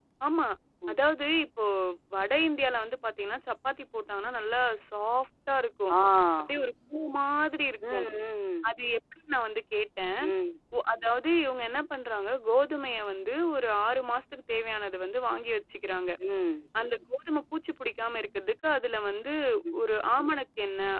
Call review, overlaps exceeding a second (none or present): none